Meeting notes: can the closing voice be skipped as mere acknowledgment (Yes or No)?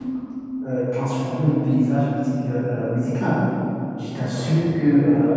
Yes